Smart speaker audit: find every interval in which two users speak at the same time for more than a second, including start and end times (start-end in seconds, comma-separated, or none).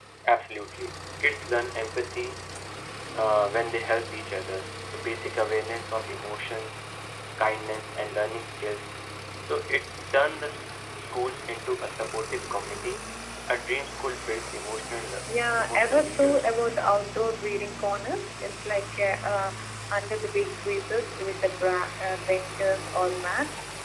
15.3-16.5